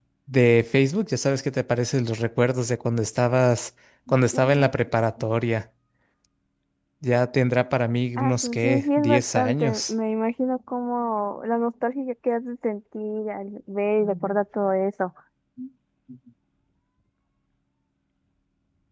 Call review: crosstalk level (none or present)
present